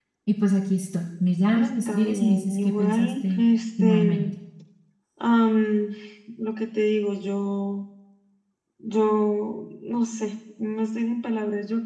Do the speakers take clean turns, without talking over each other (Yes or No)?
No